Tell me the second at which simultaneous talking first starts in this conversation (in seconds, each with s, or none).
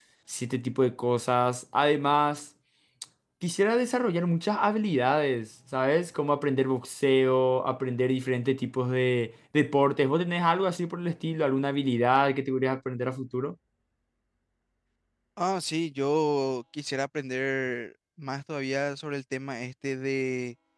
none